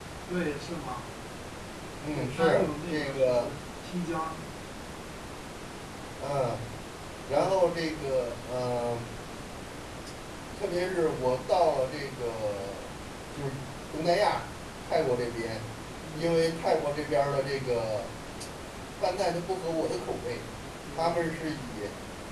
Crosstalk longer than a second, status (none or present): present